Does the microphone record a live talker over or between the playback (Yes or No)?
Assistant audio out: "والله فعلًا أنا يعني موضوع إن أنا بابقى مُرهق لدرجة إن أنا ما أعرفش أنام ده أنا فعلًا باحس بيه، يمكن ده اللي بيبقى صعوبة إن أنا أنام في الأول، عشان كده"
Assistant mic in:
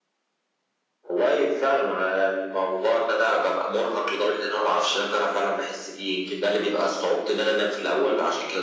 No